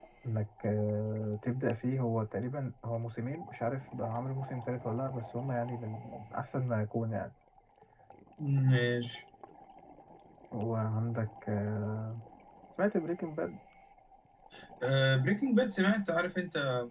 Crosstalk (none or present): none